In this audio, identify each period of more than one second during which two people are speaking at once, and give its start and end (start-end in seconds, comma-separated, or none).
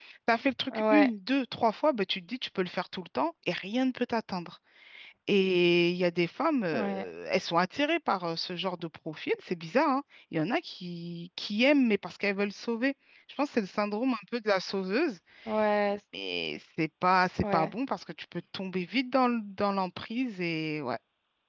none